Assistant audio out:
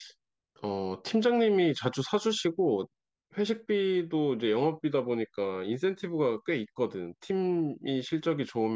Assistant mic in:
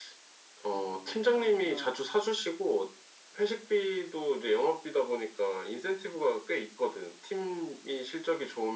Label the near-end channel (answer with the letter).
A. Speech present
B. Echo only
A